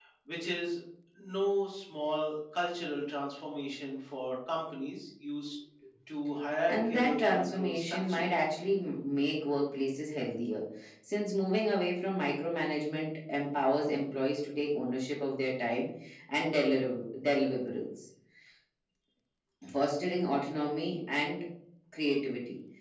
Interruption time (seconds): 6.7 s

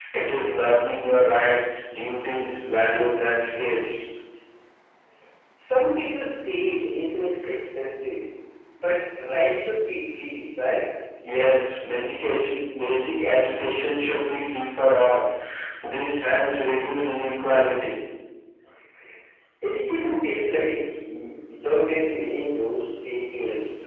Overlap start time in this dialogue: none

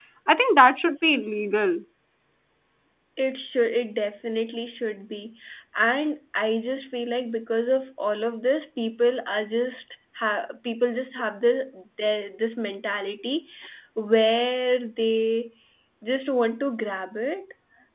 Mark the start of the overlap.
none

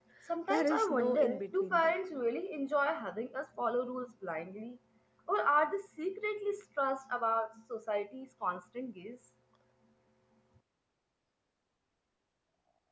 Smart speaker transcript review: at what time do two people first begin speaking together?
0.5 s

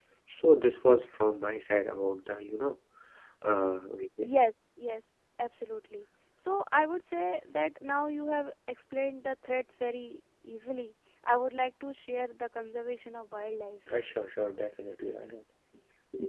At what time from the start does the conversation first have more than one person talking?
none

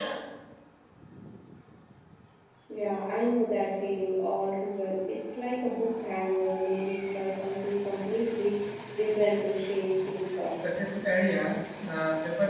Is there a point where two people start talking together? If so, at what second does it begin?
none

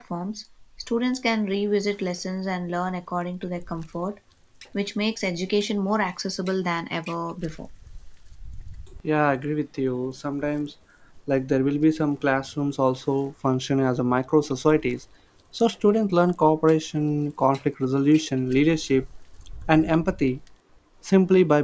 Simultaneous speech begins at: none

